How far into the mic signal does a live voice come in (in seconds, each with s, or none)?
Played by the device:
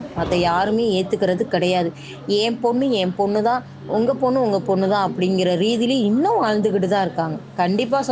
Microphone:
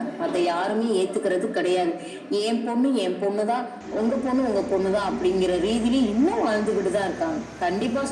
none